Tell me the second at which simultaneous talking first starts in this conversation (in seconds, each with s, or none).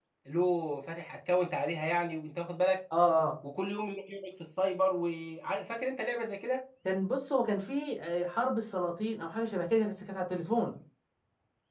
none